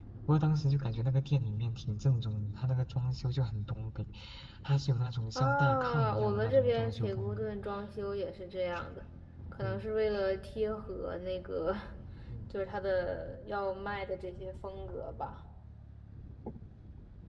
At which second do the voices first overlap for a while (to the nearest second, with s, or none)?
5 s